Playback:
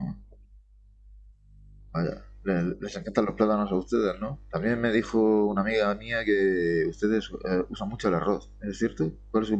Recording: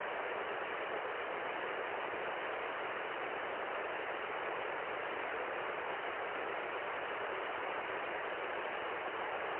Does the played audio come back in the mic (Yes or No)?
No